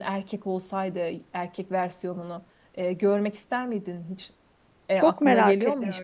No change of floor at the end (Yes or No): No